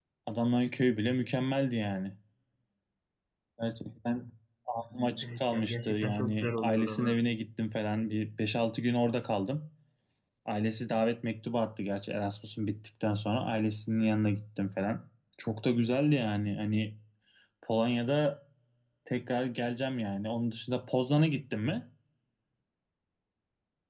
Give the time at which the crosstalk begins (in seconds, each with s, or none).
5.2 s